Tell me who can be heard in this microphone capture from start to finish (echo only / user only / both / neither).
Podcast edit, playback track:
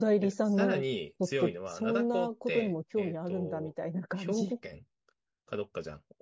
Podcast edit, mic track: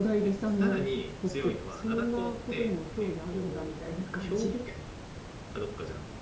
echo only